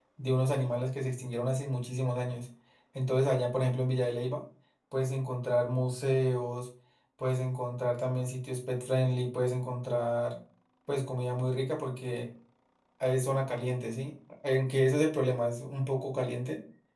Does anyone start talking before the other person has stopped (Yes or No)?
No